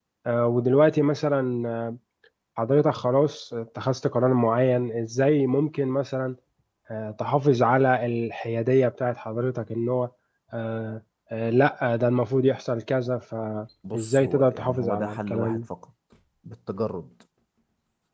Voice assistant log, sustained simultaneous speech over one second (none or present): present